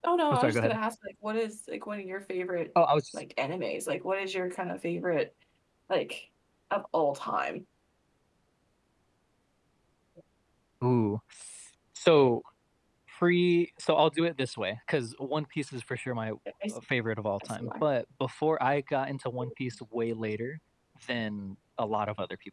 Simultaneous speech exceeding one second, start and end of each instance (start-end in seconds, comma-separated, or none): none